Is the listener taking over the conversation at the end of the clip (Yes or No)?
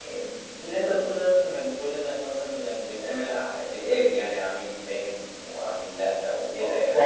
Yes